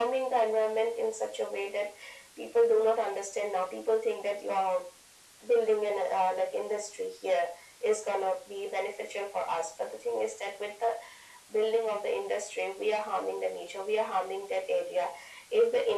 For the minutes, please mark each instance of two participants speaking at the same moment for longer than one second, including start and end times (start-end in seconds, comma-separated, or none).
none